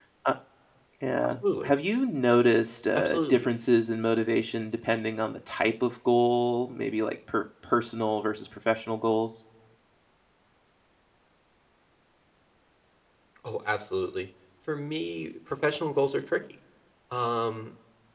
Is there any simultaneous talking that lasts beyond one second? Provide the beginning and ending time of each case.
none

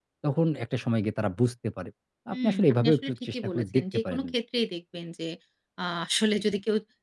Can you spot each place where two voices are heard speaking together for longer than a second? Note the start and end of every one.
2.3-4.2

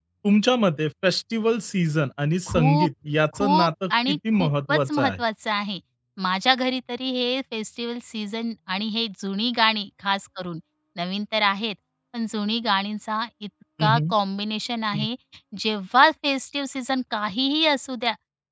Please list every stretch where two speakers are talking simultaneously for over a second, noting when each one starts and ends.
3.3-5.2

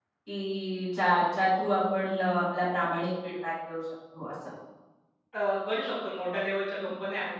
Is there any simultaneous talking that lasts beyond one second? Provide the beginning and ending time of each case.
none

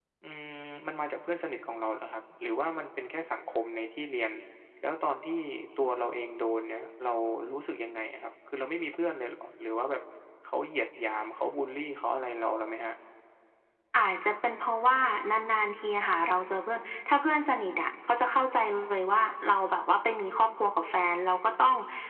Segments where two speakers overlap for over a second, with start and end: none

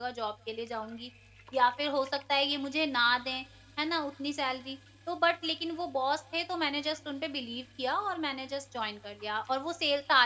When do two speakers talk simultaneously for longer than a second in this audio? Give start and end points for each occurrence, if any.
none

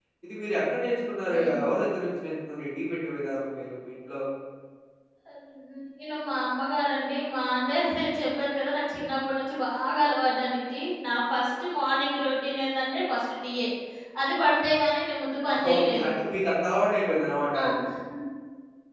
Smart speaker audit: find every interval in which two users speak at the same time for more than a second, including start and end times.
none

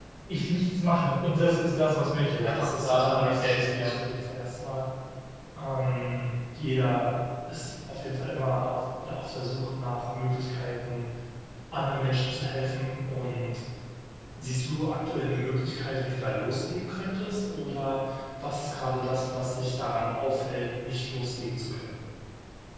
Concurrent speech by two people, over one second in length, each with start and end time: 2.3-3.9

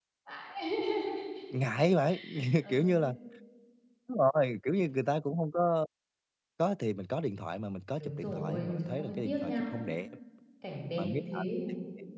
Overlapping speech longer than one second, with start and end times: 8.0-9.6

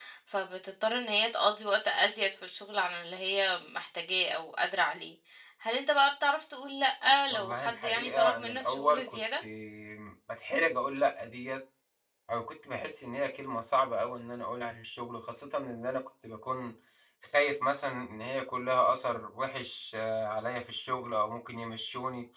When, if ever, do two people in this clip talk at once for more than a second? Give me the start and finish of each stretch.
7.3-9.2

